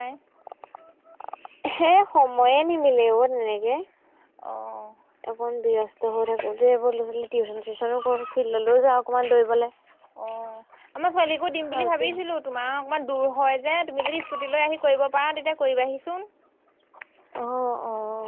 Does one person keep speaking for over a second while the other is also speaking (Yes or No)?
No